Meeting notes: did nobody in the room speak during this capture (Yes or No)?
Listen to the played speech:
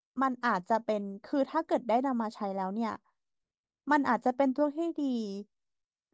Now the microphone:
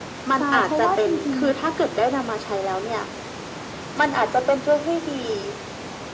No